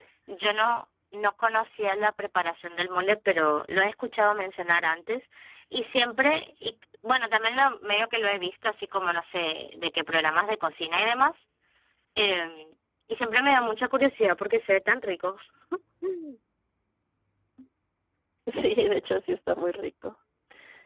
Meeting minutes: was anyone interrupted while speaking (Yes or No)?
No